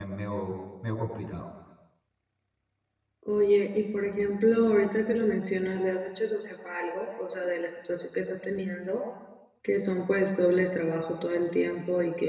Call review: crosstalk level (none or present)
none